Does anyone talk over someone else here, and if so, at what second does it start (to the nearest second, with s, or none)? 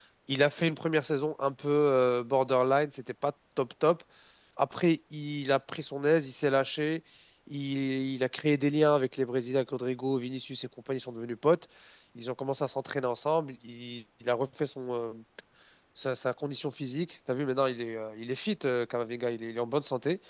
none